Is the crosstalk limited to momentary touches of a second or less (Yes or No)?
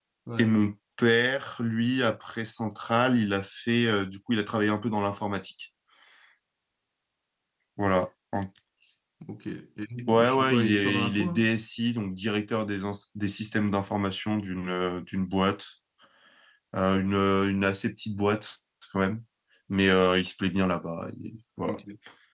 No